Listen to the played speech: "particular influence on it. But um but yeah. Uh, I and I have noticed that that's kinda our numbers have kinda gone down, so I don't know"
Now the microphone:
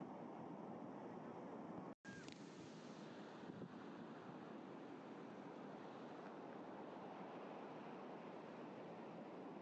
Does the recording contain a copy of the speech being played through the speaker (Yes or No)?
No